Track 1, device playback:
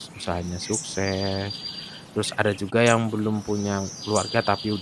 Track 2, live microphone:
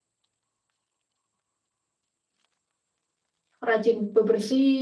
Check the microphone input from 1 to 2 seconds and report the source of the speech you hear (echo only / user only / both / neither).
neither